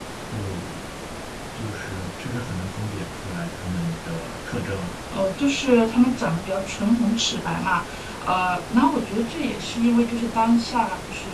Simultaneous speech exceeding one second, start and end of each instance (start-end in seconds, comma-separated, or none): none